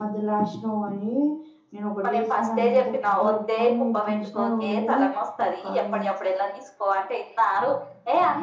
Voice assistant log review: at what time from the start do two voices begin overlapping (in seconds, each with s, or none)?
2.0 s